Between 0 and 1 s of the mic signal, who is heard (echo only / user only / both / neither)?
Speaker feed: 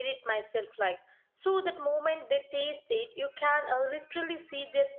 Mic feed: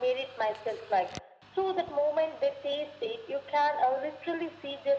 echo only